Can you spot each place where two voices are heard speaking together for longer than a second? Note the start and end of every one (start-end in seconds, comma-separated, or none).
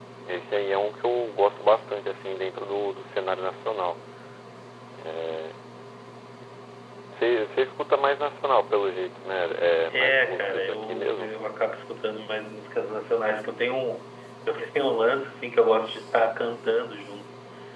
9.9-11.3